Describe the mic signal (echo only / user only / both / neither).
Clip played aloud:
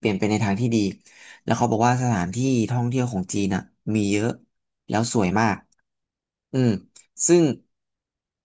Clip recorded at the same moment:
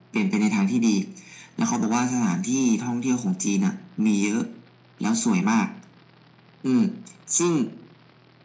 echo only